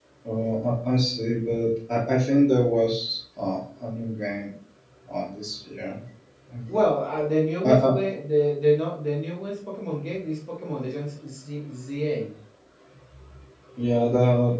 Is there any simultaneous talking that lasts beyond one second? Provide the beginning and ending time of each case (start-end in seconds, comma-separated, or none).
none